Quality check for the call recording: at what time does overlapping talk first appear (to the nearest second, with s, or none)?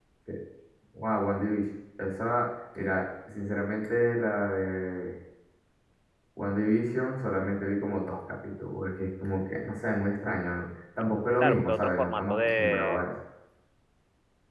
11 s